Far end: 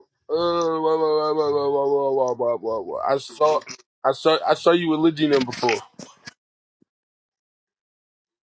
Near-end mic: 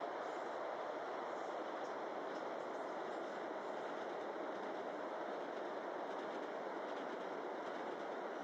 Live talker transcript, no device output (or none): none